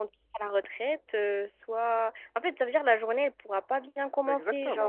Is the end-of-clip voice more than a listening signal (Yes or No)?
Yes